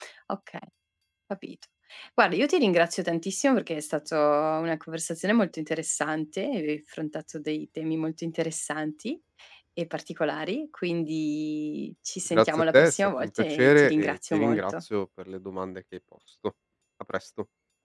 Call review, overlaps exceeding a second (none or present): present